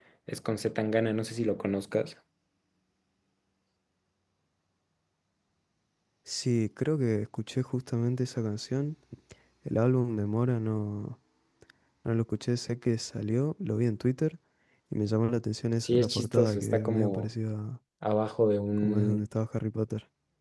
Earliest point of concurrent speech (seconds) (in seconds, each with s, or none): 15.8 s